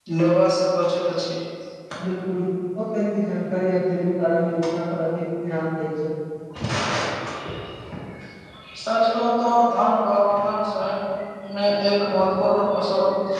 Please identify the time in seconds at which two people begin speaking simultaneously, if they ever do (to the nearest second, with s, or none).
none